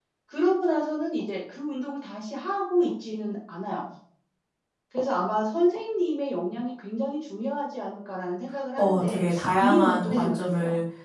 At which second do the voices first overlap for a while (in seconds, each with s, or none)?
8.8 s